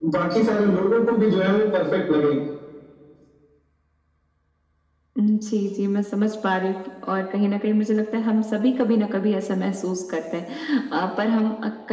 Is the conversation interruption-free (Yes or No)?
Yes